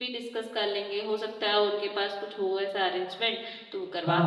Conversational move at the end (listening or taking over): taking over